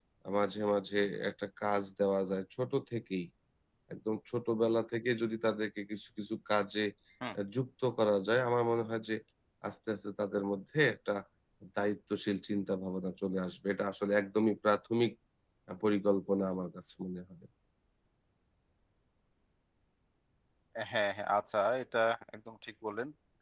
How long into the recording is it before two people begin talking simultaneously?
none

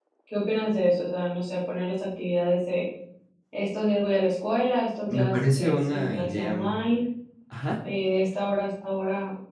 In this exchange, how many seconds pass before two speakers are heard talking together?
5.1 s

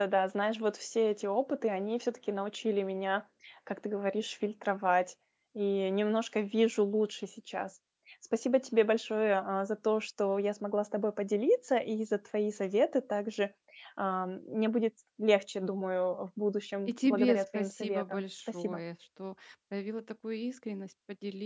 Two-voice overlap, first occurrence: 16.9 s

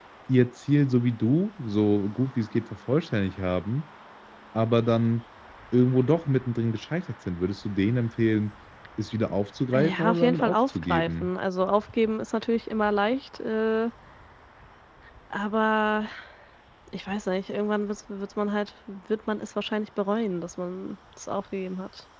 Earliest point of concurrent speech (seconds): 9.7 s

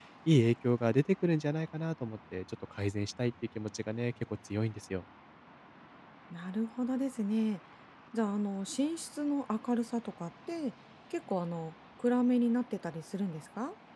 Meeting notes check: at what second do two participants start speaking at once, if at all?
none

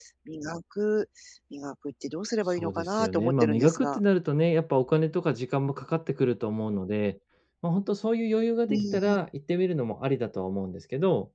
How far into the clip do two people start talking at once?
2.6 s

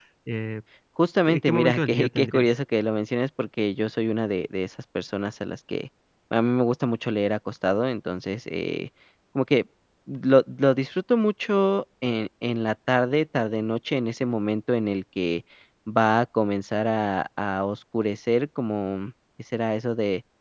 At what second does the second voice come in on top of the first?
1.3 s

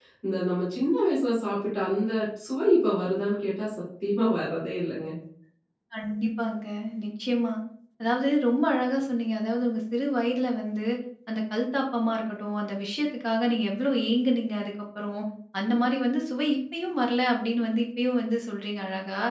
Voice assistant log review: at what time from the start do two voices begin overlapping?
none

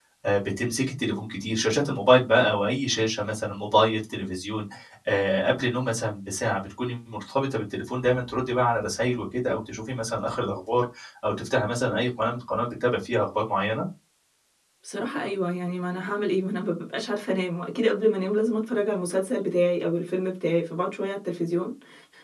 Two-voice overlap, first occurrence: none

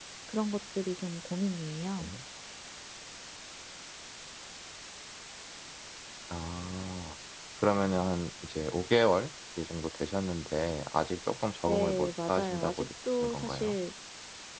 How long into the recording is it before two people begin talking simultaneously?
11.7 s

